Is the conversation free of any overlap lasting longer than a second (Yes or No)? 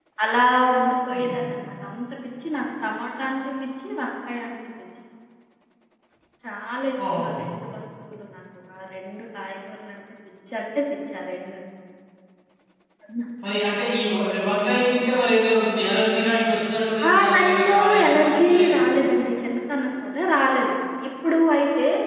No